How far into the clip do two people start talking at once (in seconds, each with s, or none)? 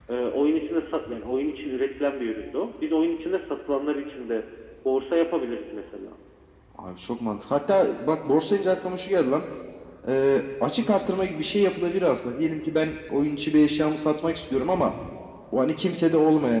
none